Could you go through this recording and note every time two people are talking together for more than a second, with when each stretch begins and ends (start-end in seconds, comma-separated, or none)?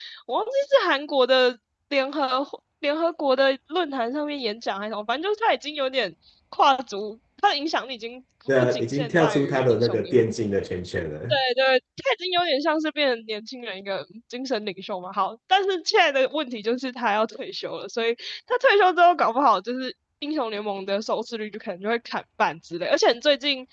8.6-10.2